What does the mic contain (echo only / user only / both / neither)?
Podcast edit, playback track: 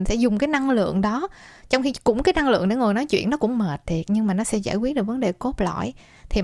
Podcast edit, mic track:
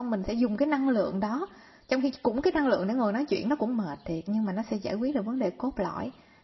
echo only